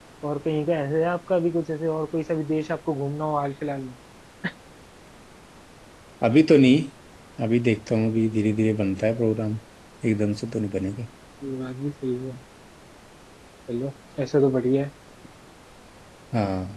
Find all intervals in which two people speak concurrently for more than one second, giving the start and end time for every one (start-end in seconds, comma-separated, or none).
none